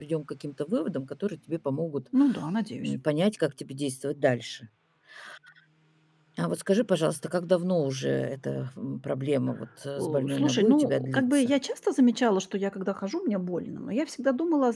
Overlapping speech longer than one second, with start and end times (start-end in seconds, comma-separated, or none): 10.0-11.5